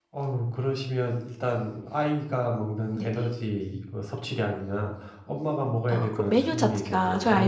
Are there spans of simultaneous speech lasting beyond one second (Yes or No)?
Yes